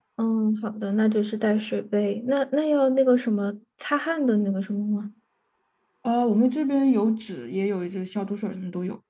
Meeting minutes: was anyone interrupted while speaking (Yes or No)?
No